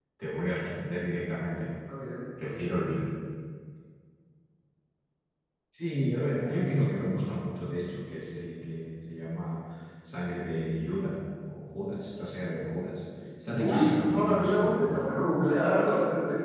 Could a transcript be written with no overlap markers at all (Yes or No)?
No